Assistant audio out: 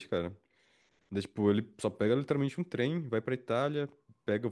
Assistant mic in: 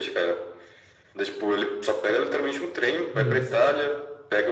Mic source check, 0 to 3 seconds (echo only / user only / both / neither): echo only